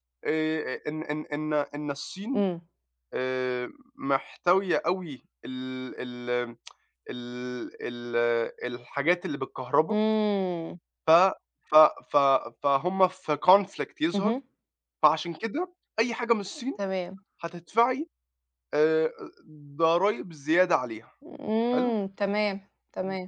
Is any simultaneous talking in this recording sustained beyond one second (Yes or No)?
No